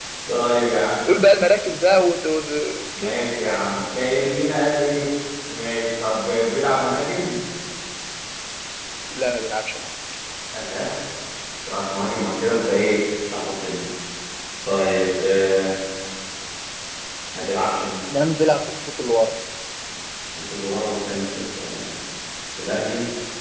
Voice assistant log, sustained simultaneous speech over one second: none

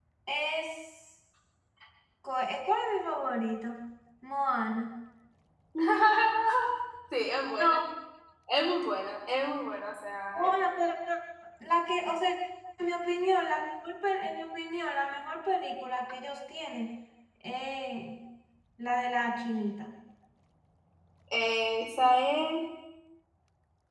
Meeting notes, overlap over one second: none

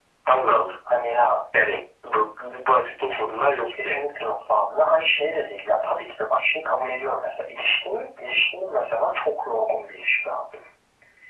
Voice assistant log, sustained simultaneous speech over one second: none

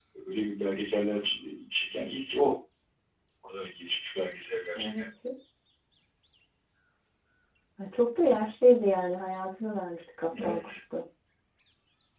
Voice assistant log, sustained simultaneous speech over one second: none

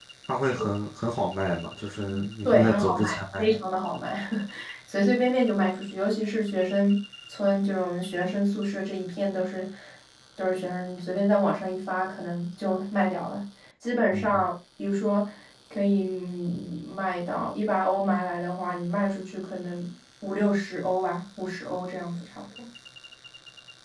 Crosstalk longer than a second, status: present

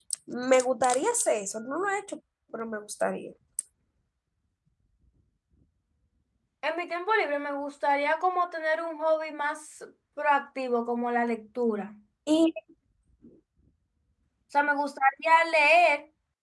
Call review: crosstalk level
none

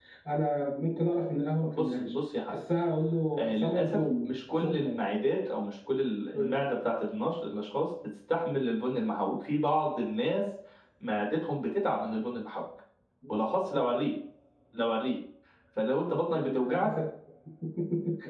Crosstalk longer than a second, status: present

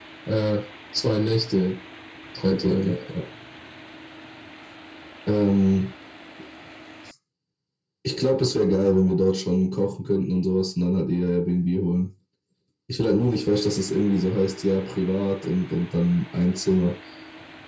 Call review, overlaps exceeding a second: none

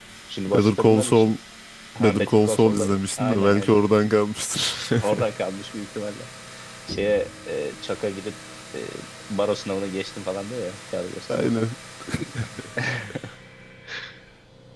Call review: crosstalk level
present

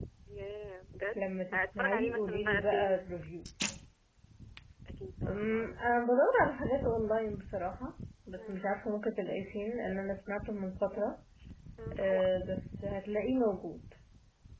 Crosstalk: present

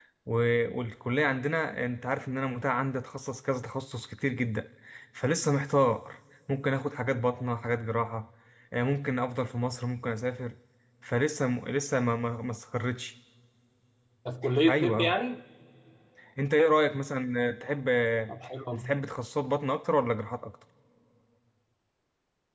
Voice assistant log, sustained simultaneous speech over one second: none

